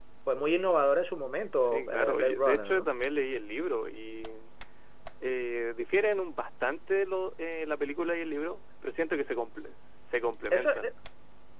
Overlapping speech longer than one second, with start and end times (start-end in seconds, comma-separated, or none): 1.6-2.9